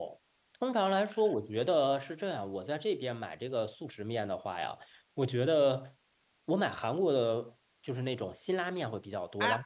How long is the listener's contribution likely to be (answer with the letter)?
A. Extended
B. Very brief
B